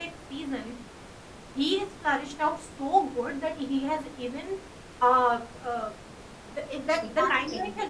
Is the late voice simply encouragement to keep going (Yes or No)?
Yes